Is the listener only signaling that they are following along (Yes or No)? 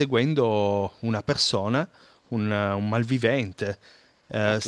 Yes